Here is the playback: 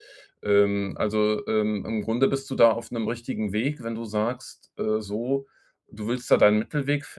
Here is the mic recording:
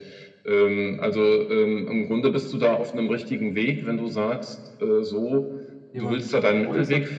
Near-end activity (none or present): present